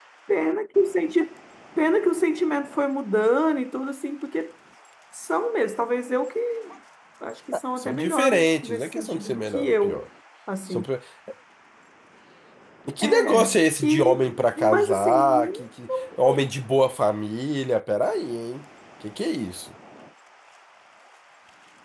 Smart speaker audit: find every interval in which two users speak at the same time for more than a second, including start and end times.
7.8-10.0, 13.0-15.5

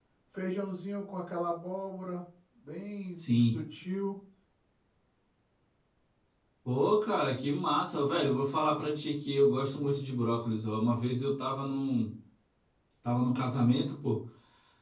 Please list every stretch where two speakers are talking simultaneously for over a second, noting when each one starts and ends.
none

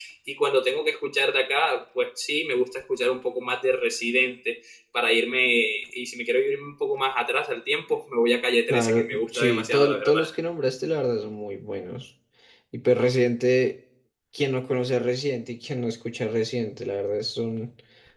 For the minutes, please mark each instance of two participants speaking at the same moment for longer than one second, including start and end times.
8.7-10.2

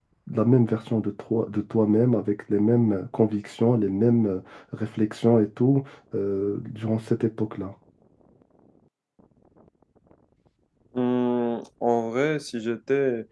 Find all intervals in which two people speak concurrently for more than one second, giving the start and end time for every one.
none

